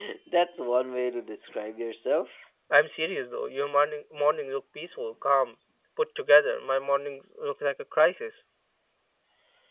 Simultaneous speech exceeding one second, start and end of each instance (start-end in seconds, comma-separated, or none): none